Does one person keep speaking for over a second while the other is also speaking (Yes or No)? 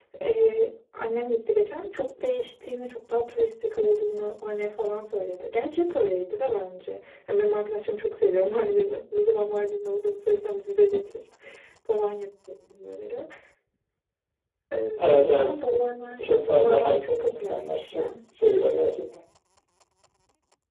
Yes